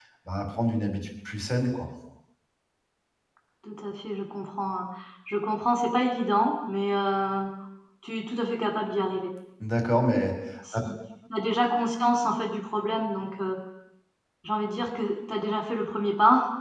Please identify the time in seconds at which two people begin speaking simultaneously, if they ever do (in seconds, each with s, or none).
none